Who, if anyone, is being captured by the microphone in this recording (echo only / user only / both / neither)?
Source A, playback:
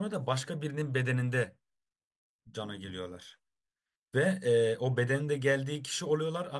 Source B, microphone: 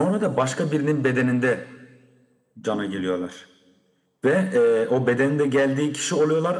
echo only